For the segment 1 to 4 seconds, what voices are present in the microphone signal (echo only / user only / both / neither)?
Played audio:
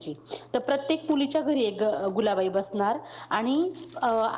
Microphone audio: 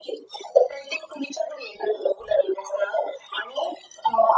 echo only